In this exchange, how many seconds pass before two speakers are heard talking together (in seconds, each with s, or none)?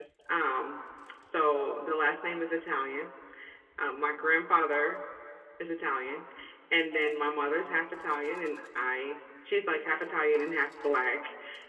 none